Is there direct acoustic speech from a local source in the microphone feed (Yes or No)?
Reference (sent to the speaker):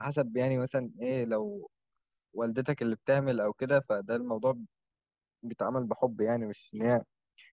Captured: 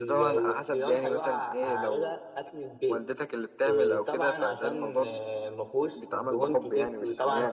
Yes